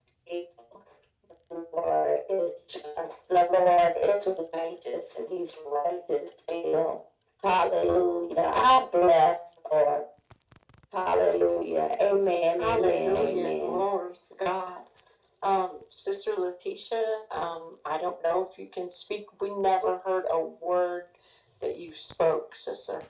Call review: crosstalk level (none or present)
present